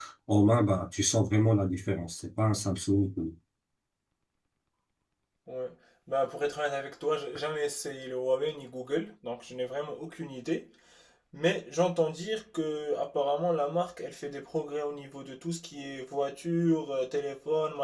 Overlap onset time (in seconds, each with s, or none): none